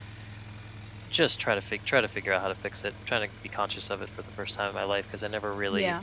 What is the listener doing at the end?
listening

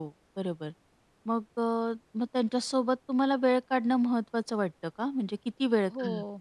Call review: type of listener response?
taking over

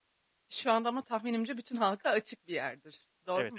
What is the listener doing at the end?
taking over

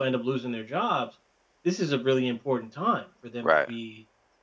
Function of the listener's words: listening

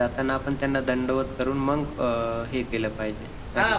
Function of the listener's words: taking over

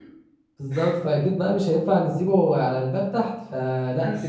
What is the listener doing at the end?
listening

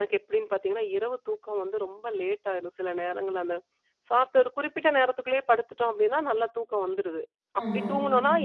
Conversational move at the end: listening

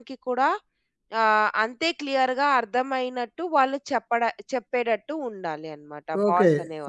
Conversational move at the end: taking over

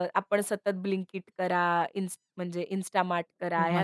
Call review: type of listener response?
listening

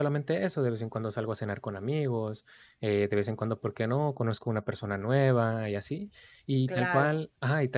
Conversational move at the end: listening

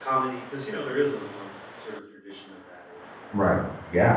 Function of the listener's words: taking over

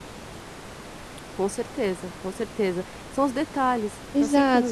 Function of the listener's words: taking over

